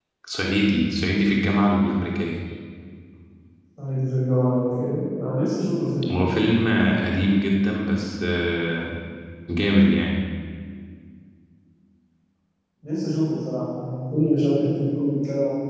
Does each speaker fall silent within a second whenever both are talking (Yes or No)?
Yes